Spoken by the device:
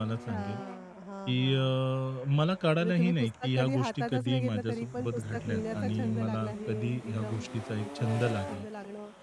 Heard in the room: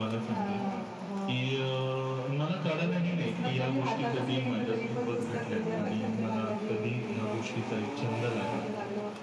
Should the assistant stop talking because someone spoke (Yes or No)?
No